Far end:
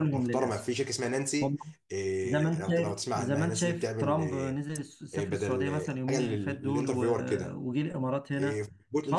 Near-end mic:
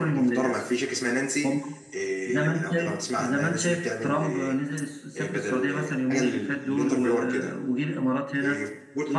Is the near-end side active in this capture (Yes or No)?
No